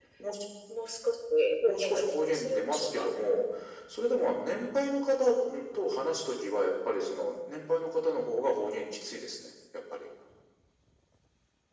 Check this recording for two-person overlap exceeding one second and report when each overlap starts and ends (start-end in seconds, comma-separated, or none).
1.6-3.1